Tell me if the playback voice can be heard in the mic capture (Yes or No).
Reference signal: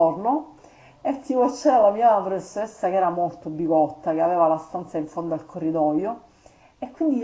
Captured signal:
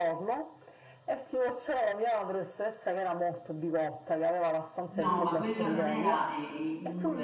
Yes